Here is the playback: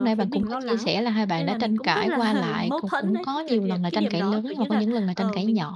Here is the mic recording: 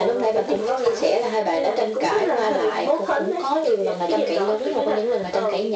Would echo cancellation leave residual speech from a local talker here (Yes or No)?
No